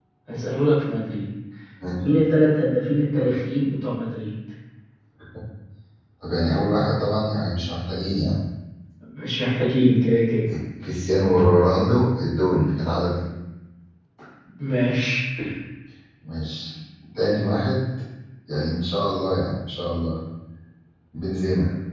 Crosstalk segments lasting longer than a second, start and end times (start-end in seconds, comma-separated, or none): none